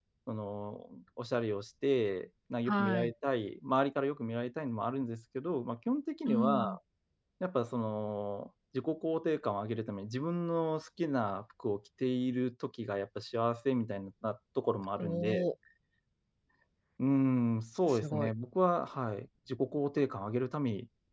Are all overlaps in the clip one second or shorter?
Yes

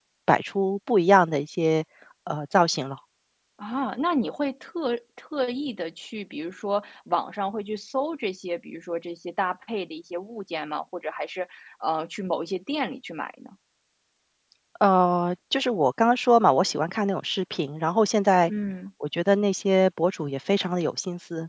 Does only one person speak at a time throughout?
Yes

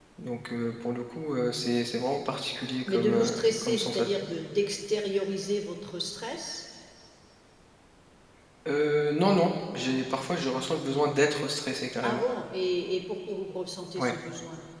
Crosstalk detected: Yes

